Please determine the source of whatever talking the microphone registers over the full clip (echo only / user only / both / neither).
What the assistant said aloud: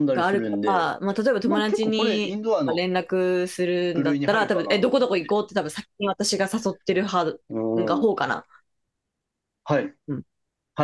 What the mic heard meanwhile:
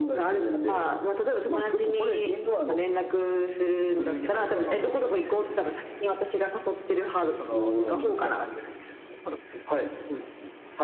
both